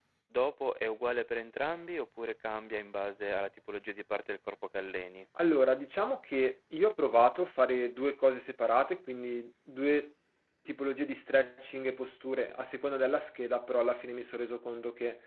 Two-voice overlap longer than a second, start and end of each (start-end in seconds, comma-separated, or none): none